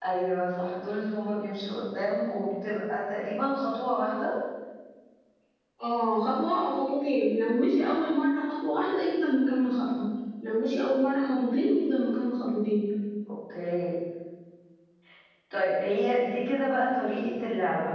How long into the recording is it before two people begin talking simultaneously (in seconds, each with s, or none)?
none